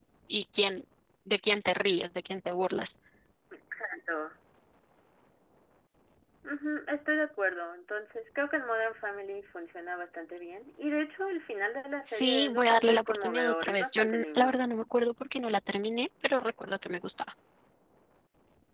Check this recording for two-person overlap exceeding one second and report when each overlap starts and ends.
12.1-14.6

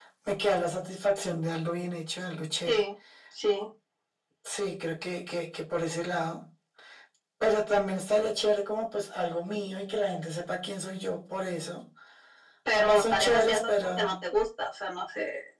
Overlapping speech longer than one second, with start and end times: 12.7-14.1

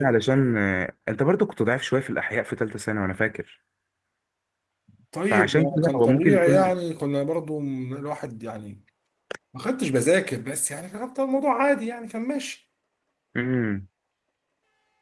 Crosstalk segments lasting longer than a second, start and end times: 5.3-6.7

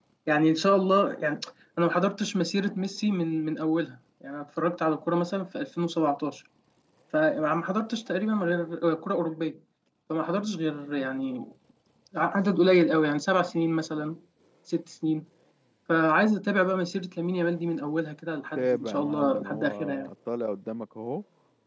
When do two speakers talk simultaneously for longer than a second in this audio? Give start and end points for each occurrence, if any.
18.6-20.1

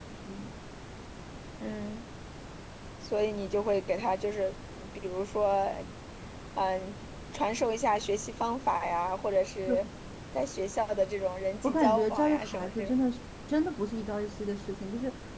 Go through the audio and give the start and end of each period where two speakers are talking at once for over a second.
11.6-13.0

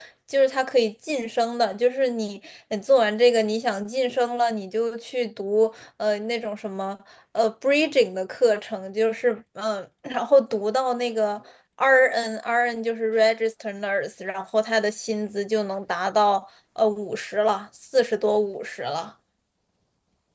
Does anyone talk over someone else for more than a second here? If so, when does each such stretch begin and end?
none

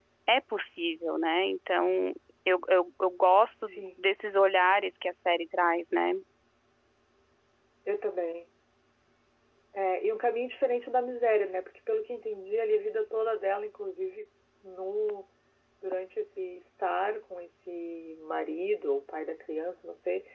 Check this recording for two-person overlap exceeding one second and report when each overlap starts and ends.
none

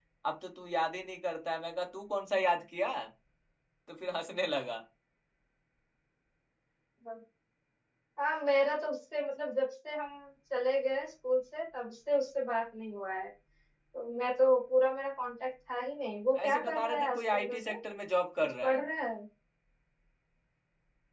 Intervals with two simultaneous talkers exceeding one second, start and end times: 16.4-17.7

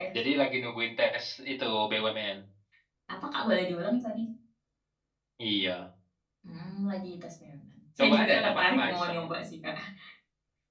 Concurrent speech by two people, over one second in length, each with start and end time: 8.0-9.2

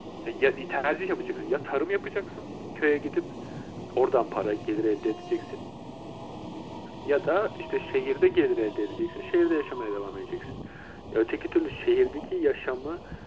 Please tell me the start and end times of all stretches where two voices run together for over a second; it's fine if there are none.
none

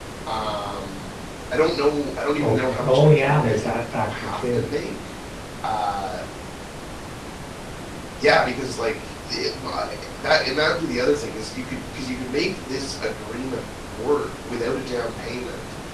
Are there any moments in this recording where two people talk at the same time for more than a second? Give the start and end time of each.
2.4-4.6

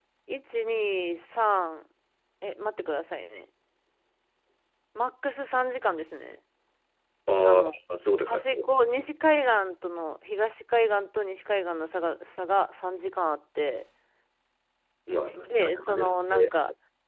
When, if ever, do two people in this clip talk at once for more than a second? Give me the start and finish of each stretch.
15.3-16.5

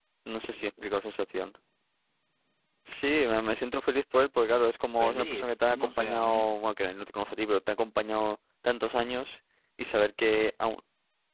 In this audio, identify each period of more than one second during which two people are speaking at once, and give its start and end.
5.0-6.5

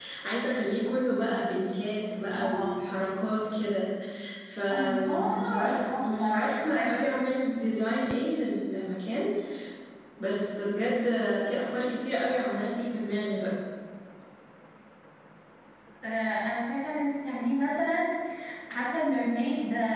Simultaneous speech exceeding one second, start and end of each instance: 4.7-7.0

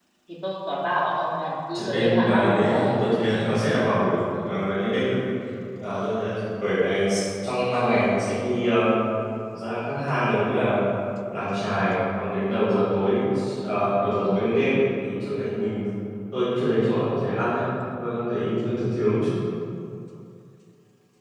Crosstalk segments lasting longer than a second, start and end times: 1.7-3.0

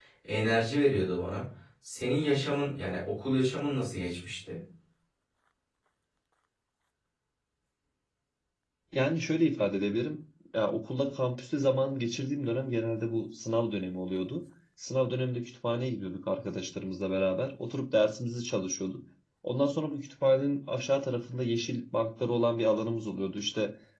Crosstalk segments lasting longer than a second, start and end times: none

